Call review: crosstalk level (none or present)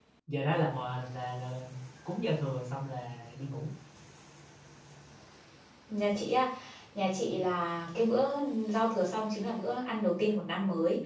none